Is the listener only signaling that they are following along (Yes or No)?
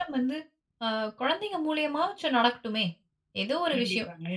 Yes